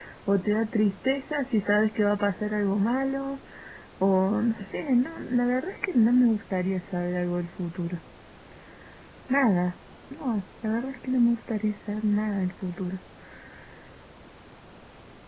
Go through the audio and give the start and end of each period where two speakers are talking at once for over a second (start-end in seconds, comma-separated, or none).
none